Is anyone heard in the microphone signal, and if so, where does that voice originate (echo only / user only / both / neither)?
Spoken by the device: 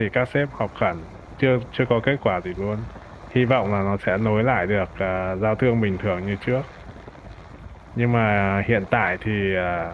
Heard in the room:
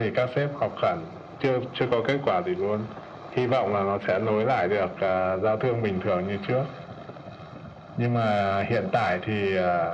echo only